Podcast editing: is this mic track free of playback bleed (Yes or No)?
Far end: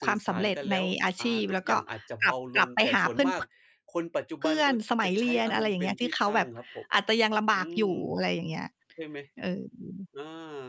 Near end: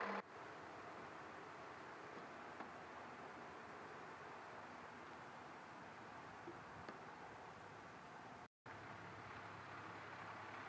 Yes